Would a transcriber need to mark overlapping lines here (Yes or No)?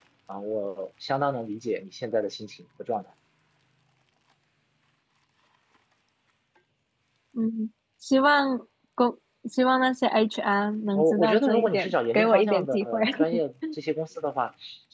Yes